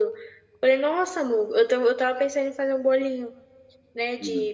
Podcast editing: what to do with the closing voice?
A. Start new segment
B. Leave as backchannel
B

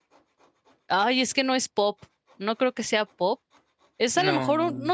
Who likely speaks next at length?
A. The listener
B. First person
B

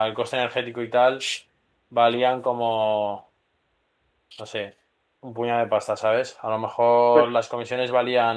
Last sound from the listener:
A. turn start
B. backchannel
B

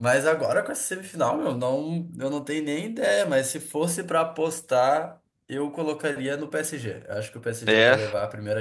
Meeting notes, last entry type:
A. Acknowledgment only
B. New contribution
A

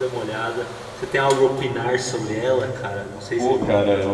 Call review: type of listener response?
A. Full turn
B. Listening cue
A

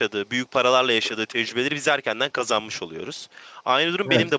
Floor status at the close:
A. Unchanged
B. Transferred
A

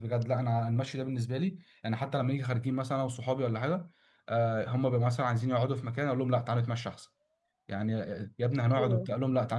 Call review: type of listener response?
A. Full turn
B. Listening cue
B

